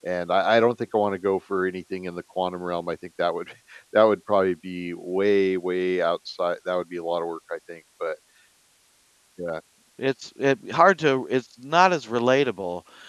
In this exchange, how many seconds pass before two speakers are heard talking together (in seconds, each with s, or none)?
none